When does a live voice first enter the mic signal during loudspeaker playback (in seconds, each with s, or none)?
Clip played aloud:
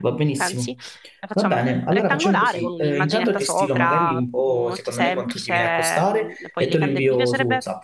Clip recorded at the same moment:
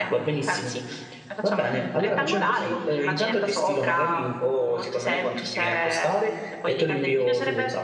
none